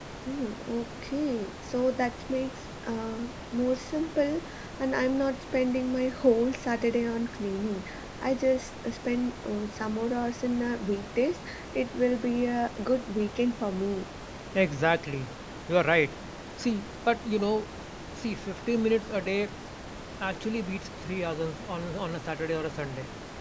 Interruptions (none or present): none